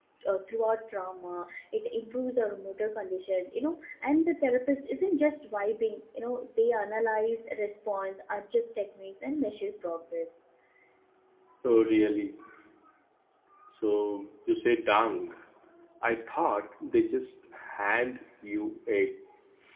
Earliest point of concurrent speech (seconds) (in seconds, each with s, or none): none